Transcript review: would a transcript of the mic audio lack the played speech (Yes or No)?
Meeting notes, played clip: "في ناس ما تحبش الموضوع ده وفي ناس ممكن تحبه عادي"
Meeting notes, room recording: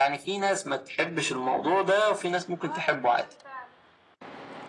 No